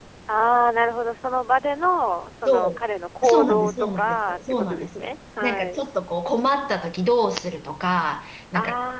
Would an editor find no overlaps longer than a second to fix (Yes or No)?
No